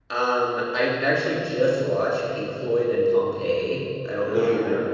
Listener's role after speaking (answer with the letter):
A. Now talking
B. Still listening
B